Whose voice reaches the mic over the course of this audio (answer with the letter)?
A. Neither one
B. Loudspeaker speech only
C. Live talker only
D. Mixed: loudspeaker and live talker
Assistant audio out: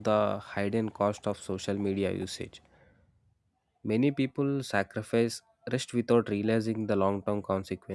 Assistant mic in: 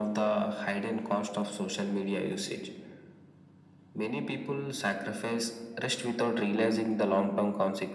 B